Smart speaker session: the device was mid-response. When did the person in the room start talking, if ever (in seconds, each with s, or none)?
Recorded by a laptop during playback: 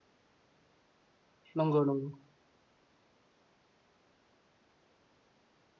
1.6 s